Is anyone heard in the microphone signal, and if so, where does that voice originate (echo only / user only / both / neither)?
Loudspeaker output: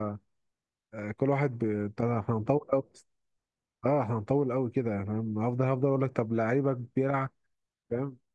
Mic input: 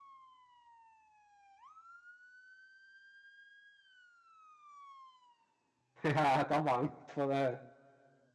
user only